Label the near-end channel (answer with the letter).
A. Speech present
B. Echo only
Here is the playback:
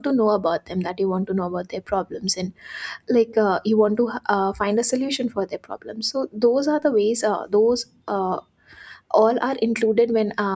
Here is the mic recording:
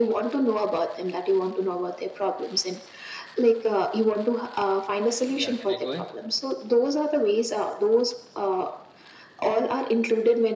A